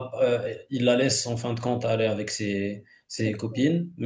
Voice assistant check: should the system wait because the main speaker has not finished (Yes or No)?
Yes